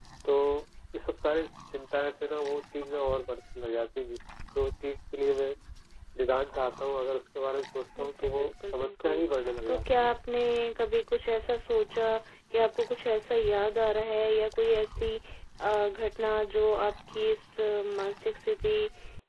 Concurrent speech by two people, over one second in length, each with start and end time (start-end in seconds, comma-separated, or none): 8.0-9.2